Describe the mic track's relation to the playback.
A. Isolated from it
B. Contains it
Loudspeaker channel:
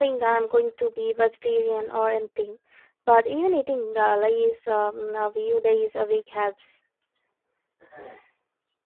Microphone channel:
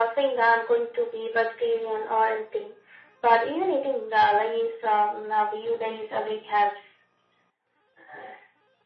B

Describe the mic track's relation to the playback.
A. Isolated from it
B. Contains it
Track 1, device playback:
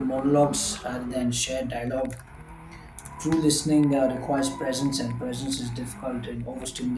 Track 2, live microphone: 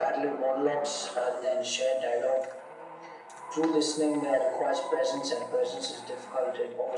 B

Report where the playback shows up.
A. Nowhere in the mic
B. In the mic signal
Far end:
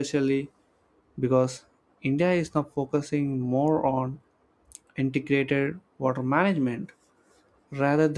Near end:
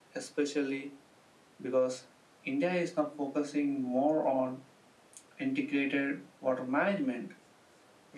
B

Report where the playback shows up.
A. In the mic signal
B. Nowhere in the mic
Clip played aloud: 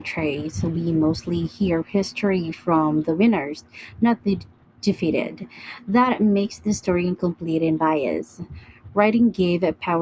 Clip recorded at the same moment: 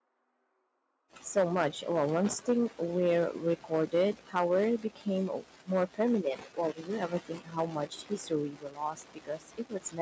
B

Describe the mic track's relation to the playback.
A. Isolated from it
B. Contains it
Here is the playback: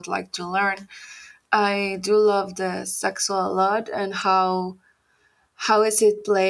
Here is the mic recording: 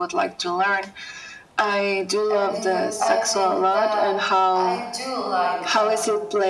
B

